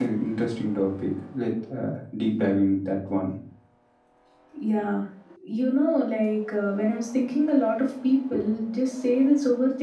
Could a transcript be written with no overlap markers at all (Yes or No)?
Yes